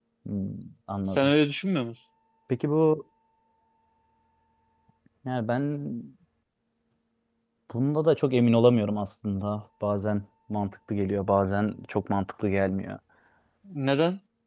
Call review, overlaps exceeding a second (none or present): none